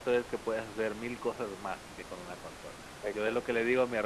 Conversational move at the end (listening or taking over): listening